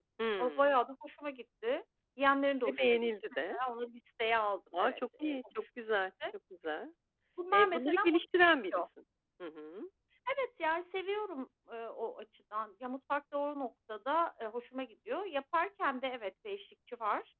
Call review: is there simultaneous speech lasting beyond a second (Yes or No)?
Yes